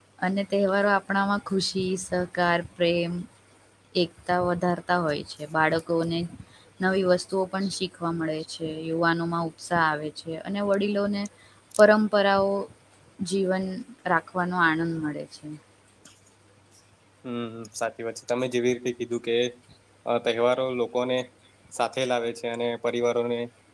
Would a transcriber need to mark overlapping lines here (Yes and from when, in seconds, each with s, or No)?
No